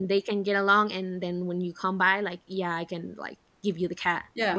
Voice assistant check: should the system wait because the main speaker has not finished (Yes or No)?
No